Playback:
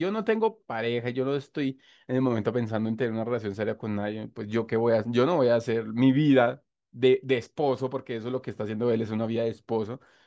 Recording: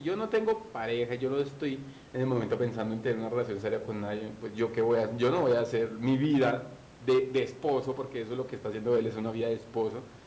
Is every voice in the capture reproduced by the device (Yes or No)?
Yes